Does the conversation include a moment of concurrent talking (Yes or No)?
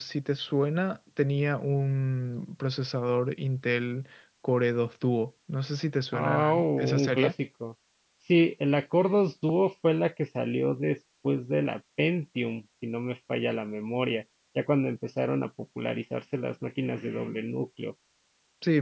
Yes